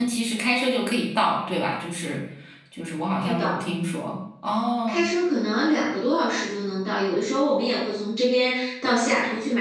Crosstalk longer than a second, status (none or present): none